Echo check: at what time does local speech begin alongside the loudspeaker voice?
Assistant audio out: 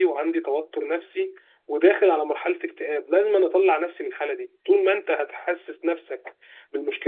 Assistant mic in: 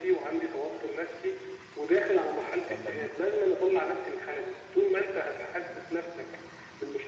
2.7 s

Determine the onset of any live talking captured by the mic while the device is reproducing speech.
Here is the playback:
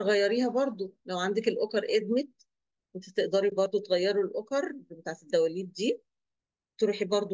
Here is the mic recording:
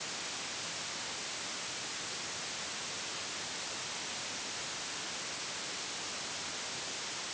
none

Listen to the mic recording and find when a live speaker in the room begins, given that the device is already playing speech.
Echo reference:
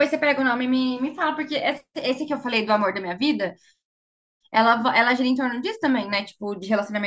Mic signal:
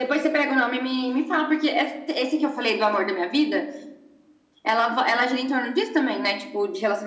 none

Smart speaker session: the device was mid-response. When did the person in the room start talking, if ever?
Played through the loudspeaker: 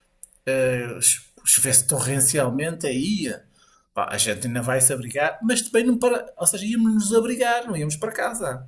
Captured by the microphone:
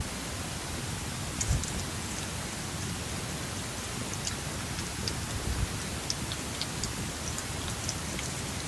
none

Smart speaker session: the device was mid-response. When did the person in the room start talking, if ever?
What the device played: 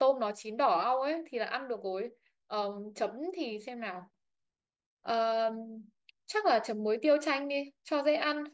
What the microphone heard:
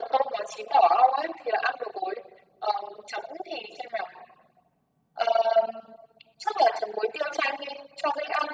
none

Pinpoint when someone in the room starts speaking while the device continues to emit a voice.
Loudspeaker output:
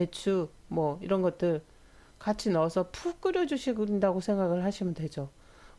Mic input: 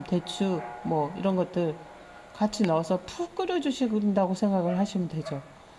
none

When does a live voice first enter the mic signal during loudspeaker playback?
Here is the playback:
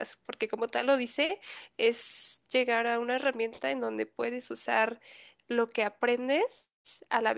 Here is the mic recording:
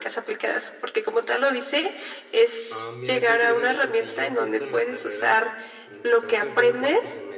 2.7 s

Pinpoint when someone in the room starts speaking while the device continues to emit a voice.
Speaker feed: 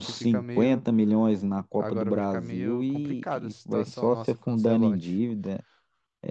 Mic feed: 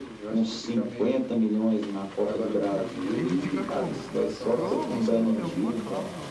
2.4 s

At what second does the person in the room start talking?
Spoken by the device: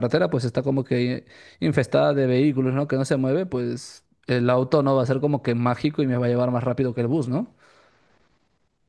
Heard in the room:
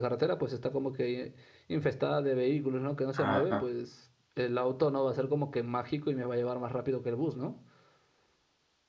3.1 s

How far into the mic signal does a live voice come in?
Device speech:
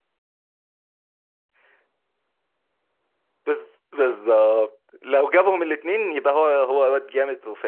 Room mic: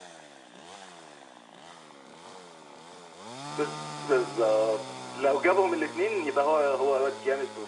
none

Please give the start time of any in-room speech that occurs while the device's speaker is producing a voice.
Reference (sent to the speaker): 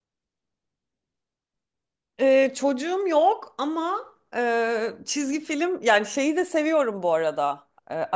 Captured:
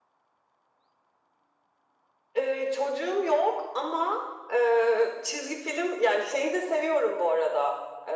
none

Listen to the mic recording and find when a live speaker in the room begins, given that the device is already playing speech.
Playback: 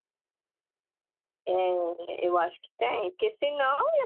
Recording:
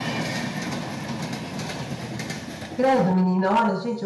2.7 s

